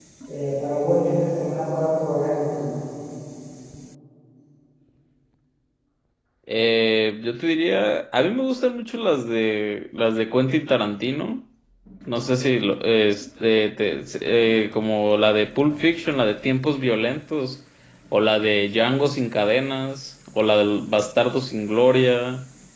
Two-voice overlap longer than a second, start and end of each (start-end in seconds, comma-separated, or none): none